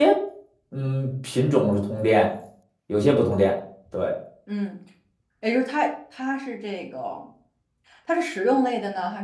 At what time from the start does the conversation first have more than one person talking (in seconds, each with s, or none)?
none